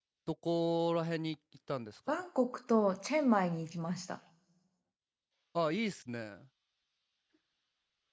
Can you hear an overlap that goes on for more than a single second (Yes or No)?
No